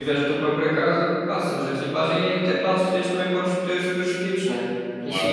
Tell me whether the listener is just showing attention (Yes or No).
Yes